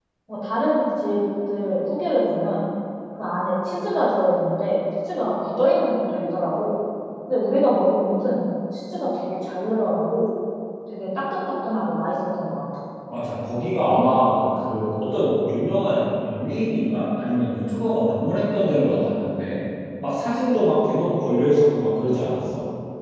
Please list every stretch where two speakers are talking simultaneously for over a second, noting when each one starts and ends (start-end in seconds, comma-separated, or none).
none